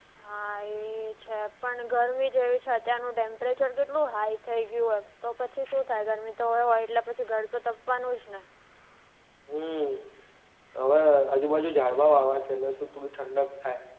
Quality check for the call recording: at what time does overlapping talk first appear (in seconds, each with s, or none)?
none